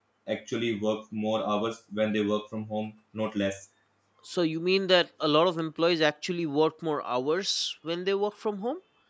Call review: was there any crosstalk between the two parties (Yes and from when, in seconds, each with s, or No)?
No